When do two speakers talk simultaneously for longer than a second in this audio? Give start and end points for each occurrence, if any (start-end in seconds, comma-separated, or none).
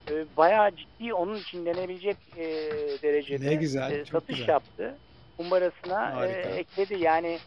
3.3-4.5